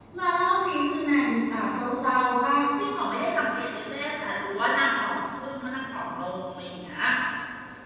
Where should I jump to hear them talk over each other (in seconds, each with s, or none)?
none